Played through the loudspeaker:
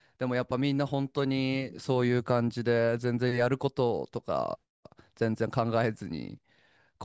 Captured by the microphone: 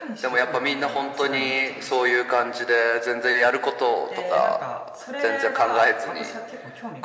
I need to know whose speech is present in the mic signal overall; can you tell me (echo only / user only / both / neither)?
both